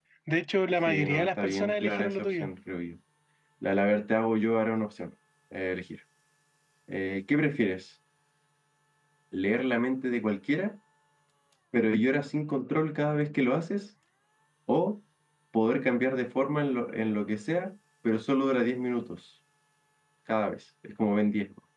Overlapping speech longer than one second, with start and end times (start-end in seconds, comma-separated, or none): 0.9-2.5